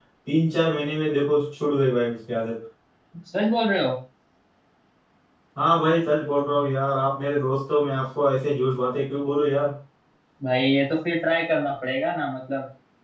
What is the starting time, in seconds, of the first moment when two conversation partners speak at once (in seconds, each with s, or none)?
none